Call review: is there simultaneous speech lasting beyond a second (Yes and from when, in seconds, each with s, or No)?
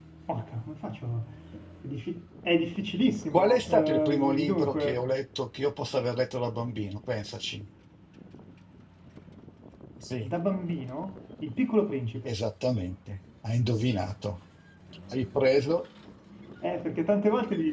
Yes, from 3.3 s